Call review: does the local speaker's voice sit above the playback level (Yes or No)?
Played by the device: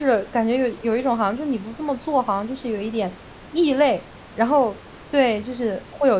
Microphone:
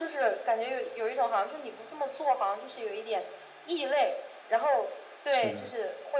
No